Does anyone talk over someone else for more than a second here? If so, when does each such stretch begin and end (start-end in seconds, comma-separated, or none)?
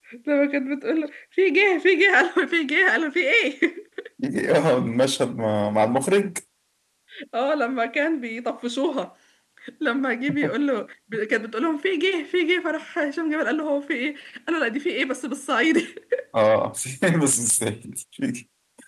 none